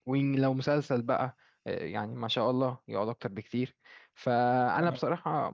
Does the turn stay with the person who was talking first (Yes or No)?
Yes